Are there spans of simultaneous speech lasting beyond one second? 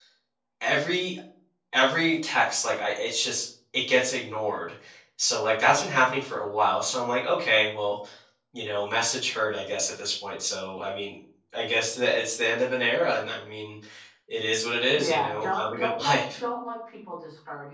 Yes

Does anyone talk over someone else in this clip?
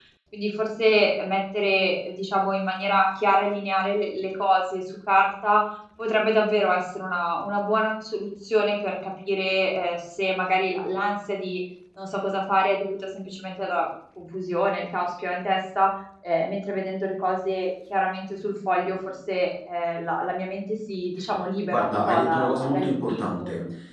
Yes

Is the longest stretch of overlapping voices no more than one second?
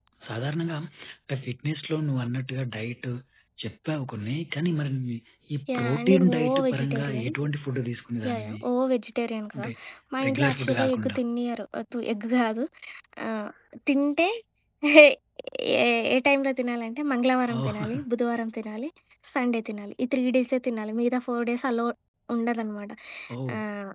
No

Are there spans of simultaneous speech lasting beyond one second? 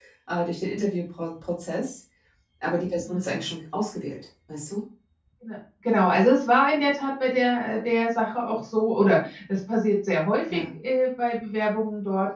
No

